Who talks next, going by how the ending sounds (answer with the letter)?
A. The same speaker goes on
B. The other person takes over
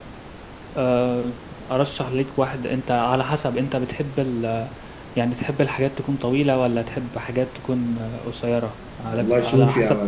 B